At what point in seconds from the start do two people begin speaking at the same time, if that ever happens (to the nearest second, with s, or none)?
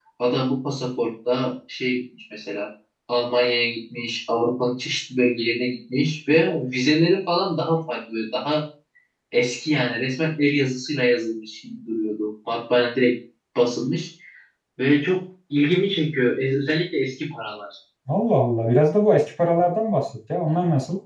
none